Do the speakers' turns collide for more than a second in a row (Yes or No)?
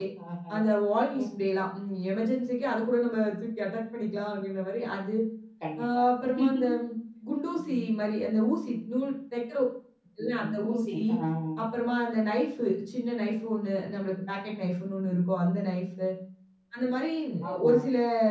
No